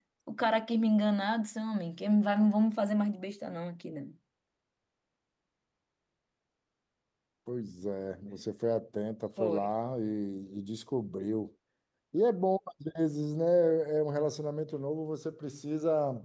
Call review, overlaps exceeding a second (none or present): none